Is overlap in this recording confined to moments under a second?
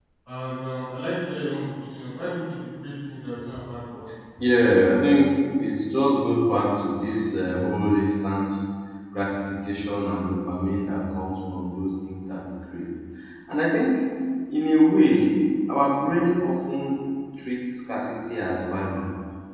Yes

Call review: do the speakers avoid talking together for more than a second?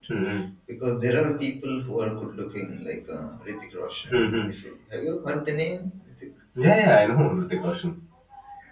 Yes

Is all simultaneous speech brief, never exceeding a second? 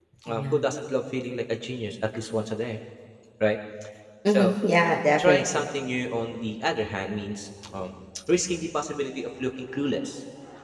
Yes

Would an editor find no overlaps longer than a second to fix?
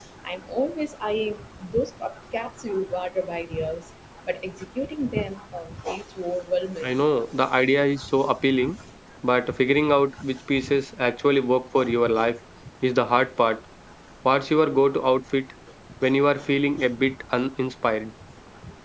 Yes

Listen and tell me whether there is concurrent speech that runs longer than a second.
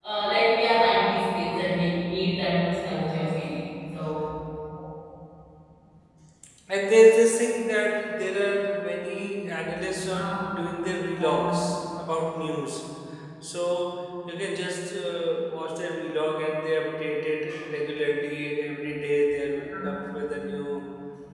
No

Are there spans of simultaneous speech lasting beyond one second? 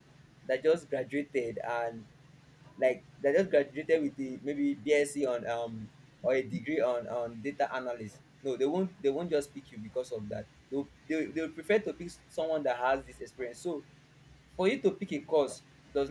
No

